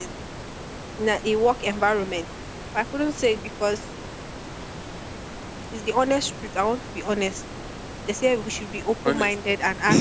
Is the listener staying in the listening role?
Yes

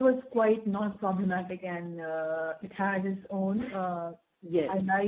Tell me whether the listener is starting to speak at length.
No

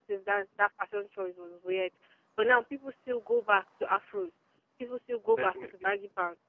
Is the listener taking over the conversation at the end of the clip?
No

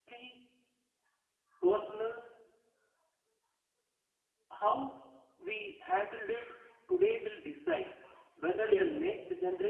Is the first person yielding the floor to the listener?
No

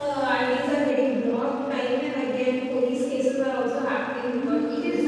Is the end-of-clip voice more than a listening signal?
Yes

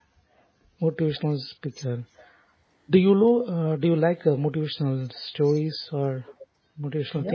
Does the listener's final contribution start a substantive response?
Yes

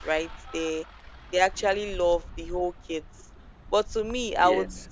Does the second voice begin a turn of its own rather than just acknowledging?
No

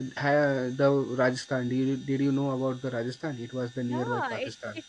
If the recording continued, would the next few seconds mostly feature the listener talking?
Yes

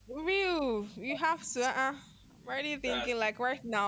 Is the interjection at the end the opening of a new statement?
No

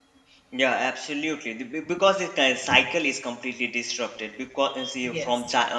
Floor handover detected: No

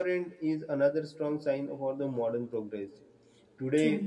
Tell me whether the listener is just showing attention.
Yes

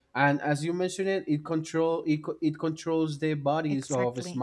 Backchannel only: No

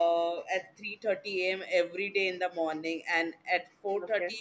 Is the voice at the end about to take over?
No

